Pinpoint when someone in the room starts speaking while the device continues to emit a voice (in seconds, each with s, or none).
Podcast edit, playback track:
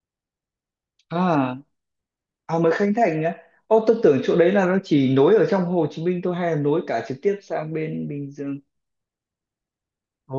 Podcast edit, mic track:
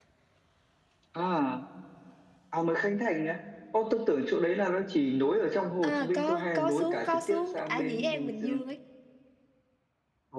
5.8 s